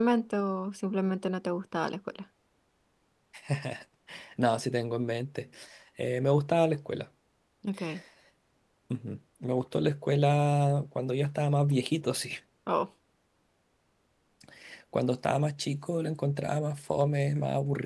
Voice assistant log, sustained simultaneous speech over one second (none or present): none